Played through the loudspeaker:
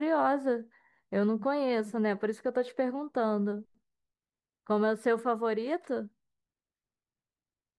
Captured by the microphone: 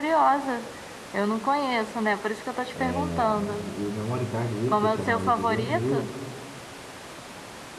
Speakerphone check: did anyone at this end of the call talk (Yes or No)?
Yes